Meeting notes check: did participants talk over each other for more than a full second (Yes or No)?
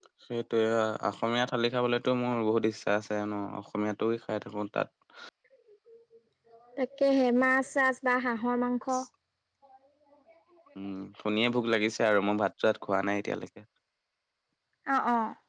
No